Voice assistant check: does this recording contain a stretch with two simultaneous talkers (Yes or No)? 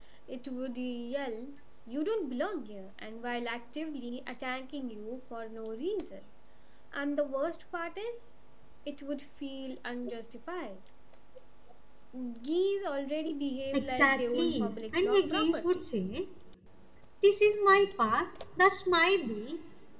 Yes